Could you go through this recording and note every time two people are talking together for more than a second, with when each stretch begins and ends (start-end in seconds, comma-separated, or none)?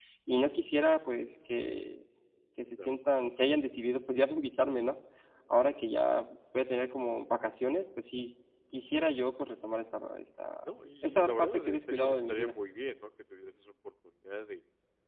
10.6-12.6